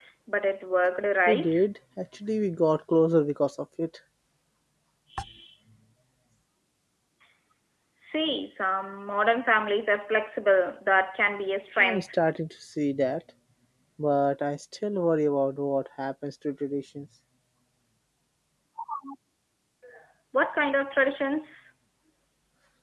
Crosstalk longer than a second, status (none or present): none